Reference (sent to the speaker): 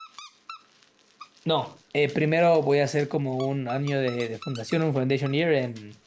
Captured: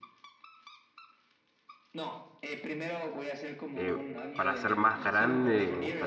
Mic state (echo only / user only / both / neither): both